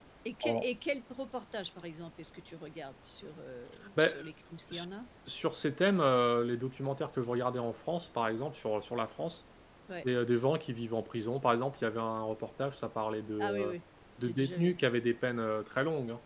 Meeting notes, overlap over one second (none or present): none